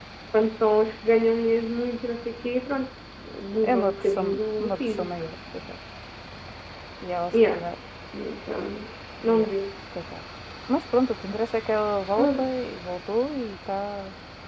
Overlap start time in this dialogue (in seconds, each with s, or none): 3.6 s